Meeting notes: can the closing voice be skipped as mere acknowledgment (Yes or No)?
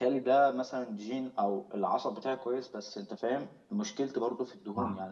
Yes